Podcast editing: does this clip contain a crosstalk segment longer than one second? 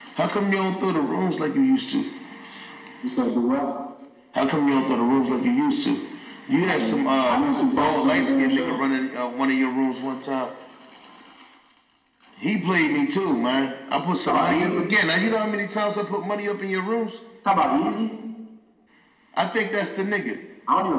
Yes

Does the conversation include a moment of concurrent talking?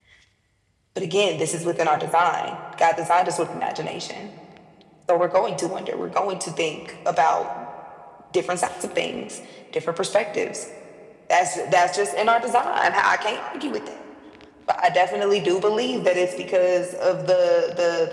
No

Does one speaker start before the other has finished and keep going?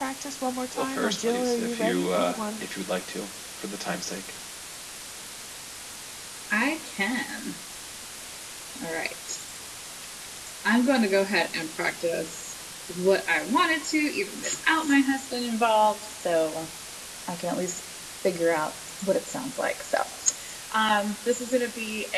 Yes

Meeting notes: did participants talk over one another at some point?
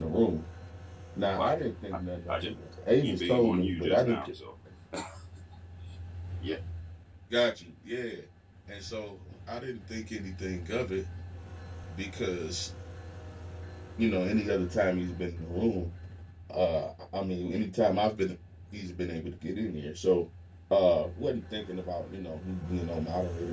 Yes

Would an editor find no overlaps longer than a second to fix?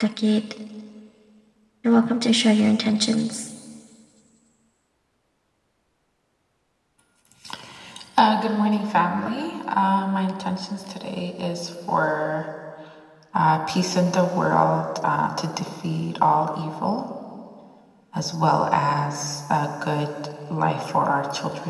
Yes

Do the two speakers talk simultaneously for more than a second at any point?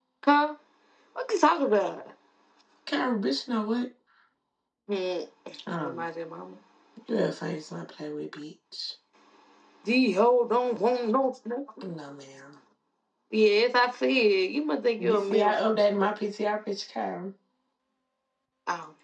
No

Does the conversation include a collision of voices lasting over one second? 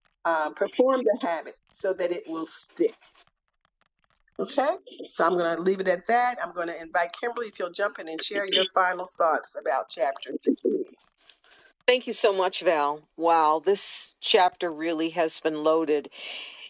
No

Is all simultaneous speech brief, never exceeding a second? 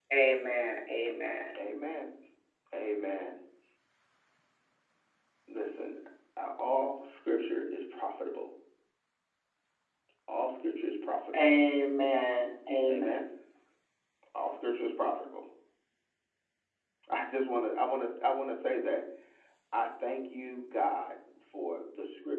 Yes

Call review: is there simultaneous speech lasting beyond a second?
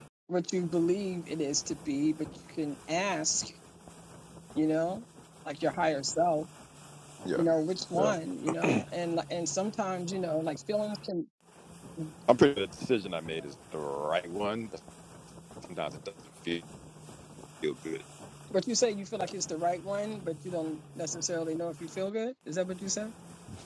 No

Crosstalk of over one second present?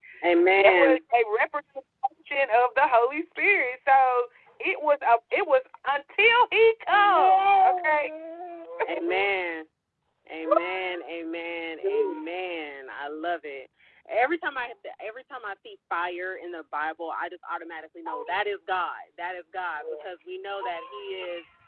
Yes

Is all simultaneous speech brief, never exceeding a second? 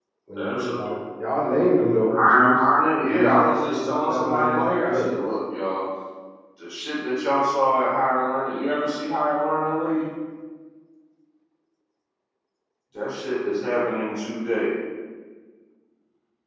No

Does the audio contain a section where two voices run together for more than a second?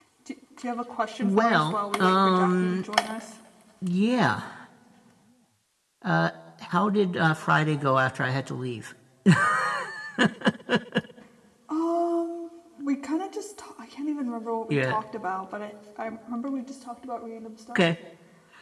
Yes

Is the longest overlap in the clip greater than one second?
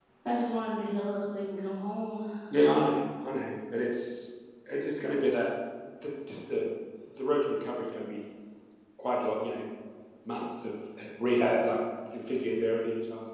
No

